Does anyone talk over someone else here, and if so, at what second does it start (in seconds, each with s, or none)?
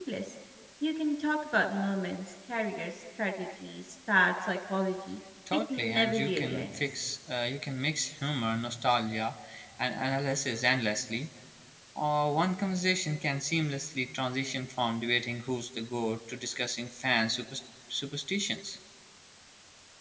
5.5 s